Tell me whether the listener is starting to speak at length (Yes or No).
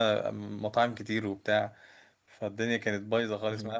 No